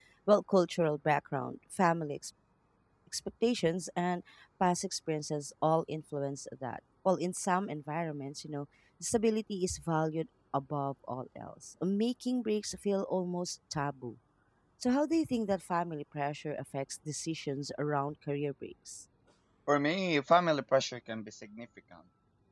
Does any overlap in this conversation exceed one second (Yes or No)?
No